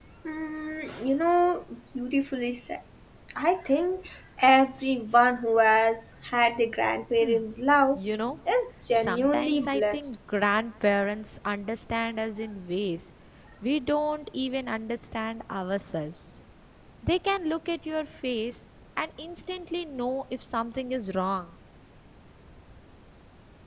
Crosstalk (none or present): present